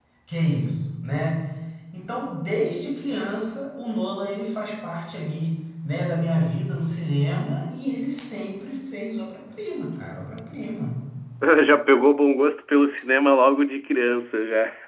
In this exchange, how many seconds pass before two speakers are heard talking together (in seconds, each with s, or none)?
none